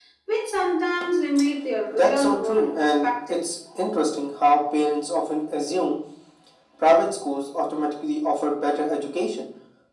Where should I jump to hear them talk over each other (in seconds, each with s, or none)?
1.9 s